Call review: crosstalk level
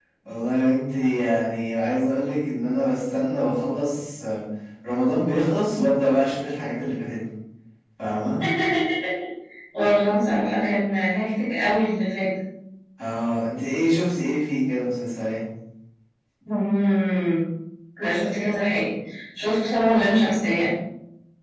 none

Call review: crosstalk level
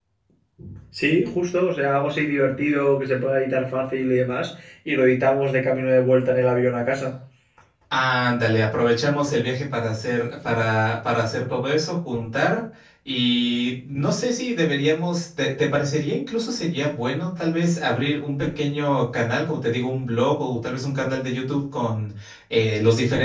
none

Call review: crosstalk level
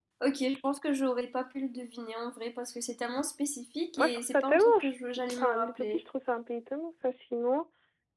present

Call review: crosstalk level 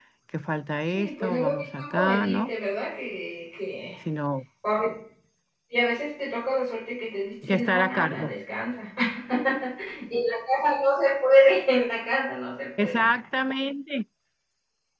present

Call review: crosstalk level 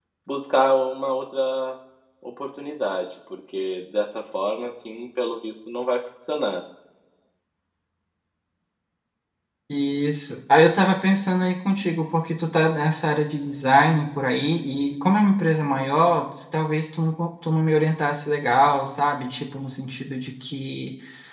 none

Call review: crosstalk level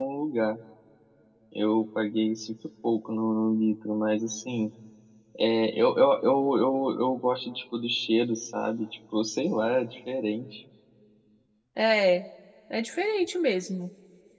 none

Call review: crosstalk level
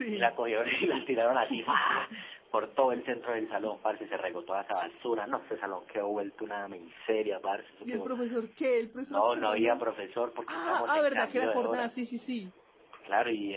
present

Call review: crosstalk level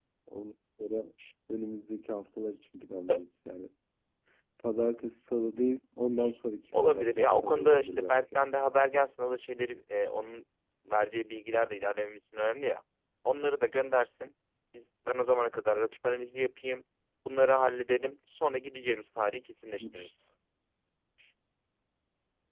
present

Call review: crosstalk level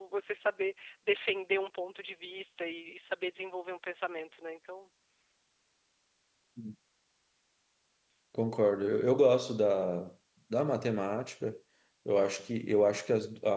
none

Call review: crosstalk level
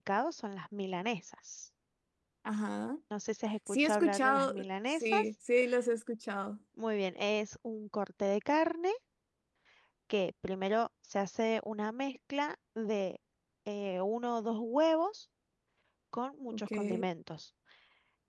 present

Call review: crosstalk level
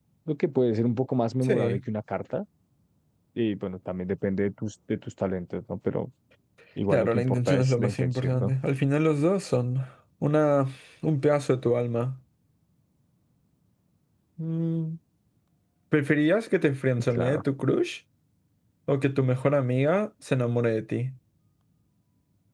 present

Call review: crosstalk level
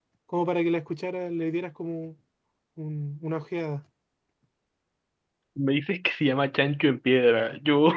none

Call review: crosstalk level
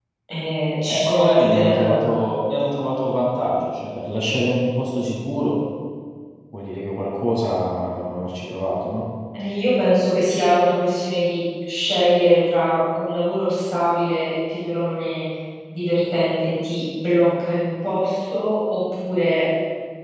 present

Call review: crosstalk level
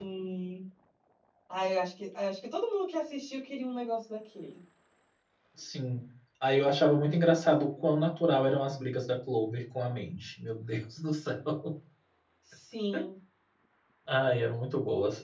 none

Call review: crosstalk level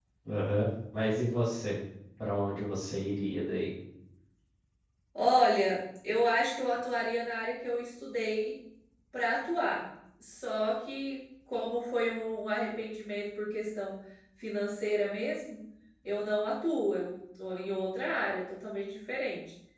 none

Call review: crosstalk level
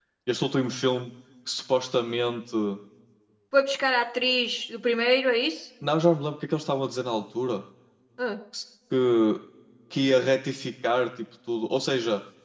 none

